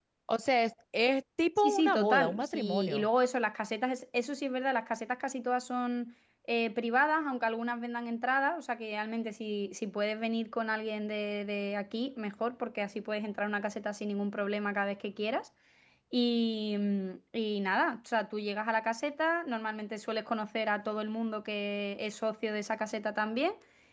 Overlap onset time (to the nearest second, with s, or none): 2 s